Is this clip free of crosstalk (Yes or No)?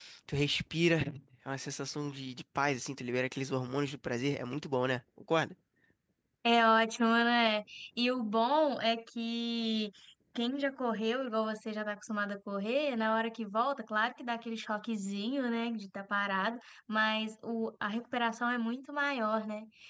Yes